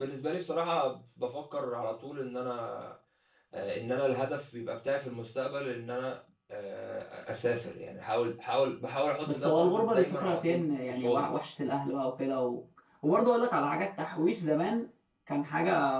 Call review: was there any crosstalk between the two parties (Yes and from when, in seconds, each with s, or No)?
Yes, from 9.3 s